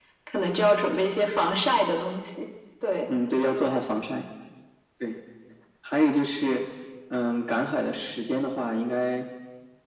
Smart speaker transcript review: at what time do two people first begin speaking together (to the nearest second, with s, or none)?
none